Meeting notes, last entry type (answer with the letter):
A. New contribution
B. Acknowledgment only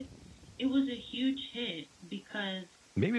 A